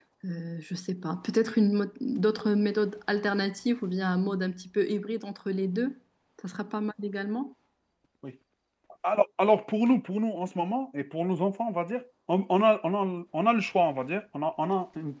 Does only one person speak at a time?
Yes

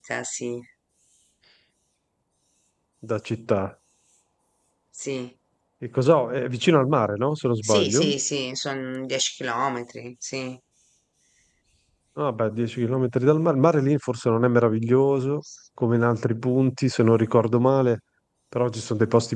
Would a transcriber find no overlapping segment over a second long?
Yes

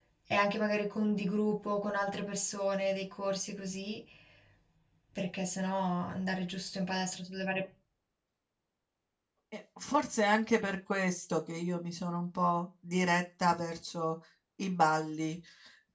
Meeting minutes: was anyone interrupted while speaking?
No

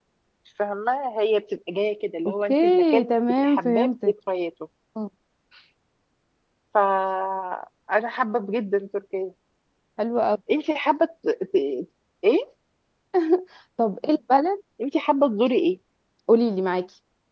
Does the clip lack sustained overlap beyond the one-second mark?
No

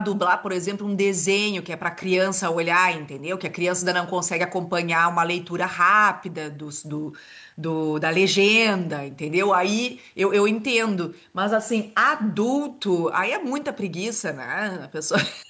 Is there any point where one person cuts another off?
No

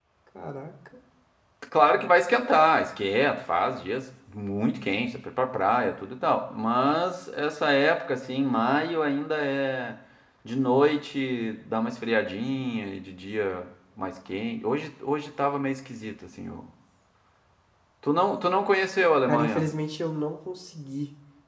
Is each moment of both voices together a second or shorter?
Yes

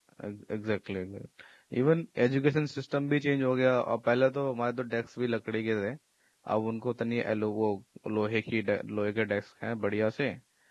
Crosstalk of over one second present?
No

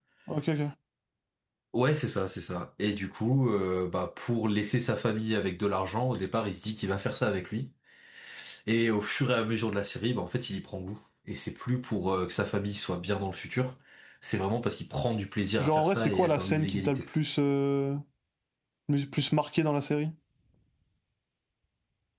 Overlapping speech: Yes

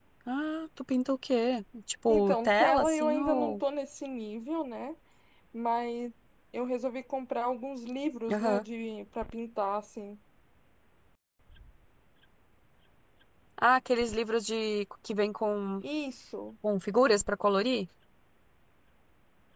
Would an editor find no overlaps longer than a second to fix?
No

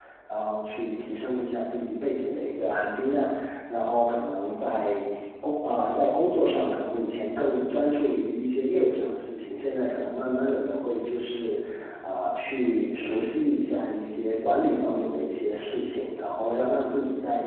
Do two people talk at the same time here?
No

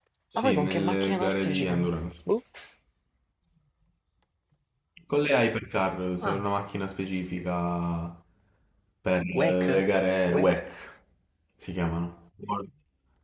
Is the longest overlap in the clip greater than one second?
Yes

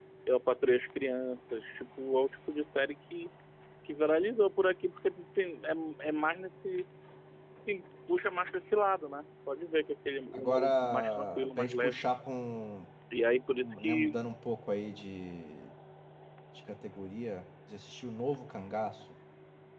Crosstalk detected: Yes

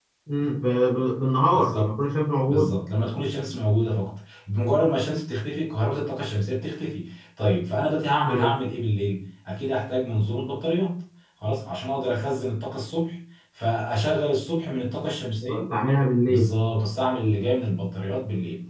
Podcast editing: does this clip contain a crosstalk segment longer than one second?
No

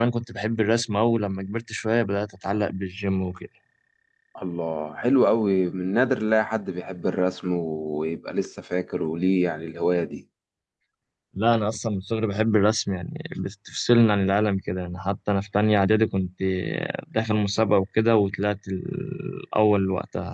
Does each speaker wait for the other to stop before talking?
Yes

